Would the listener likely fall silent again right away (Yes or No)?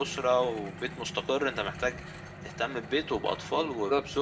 Yes